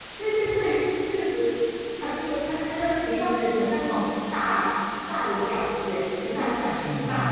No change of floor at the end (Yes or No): No